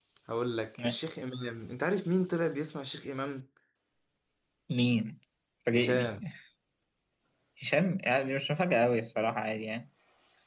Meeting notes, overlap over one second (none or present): none